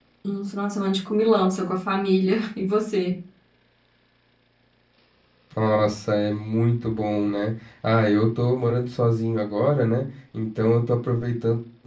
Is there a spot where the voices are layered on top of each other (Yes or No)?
No